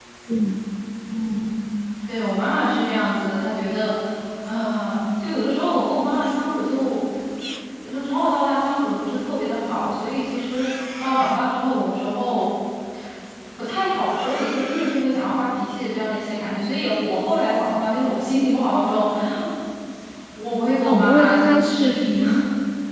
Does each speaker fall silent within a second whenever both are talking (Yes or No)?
No